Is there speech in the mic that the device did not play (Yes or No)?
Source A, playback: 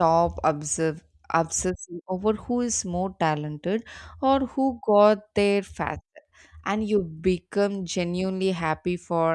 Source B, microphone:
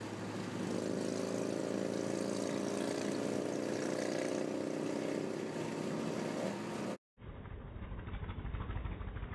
No